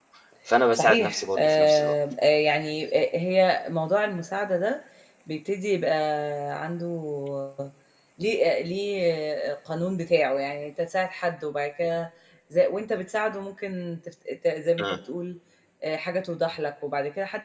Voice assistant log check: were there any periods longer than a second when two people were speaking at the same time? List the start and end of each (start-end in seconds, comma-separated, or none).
0.7-1.9